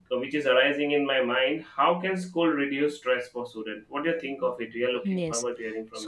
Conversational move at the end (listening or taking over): taking over